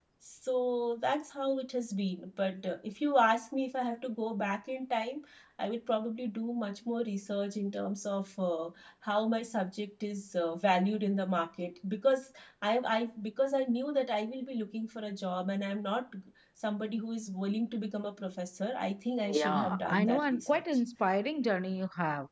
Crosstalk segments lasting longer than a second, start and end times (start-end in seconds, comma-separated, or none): 19.3-20.6